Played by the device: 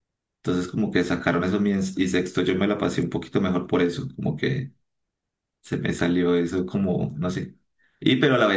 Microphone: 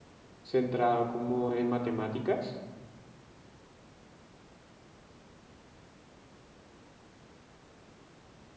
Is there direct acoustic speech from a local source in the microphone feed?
Yes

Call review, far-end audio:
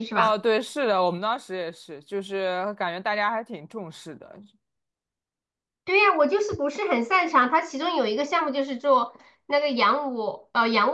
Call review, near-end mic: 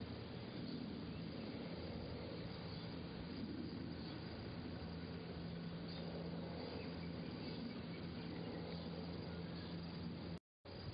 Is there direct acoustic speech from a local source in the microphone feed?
No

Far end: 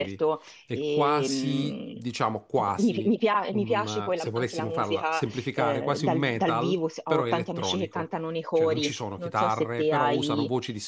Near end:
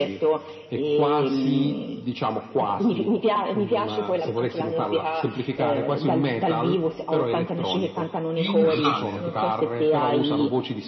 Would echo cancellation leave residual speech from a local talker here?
Yes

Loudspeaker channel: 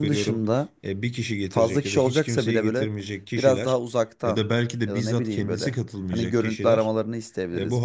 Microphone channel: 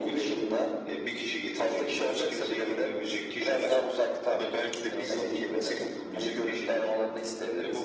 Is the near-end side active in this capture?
No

